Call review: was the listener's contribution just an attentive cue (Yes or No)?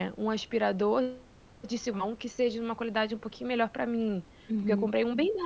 Yes